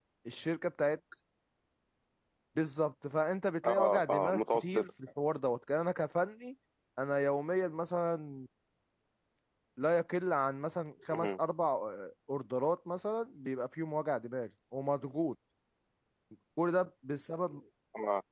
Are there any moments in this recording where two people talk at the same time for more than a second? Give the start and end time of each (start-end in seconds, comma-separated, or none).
3.6-4.9